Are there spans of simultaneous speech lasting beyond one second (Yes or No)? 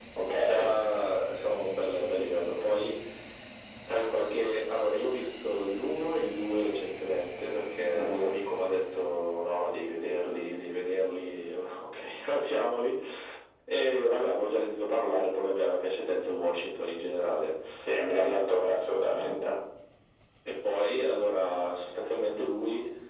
No